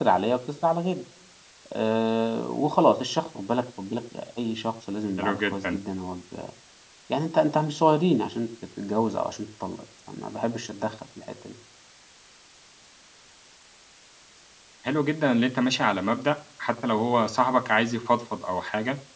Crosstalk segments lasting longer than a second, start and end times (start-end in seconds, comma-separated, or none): none